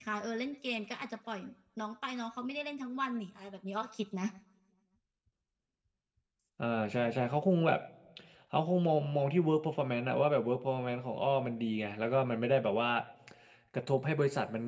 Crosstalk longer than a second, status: none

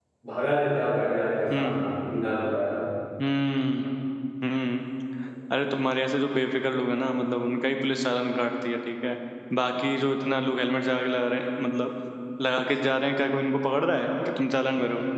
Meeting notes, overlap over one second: none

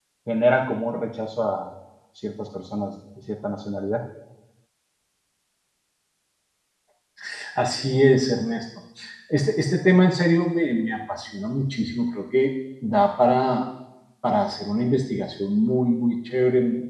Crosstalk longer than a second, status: none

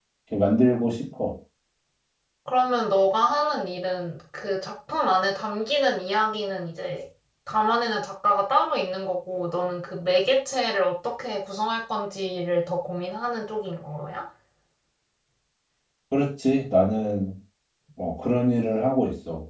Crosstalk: none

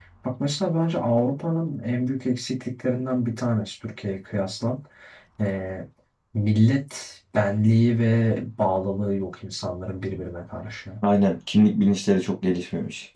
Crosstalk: none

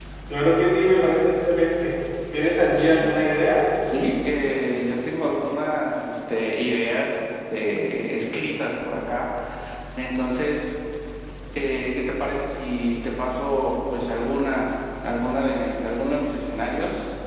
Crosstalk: none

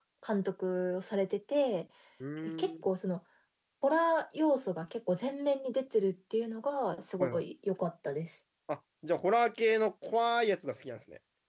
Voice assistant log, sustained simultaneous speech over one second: none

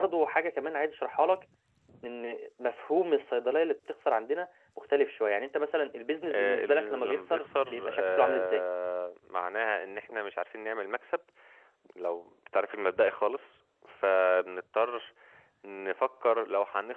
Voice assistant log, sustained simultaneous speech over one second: present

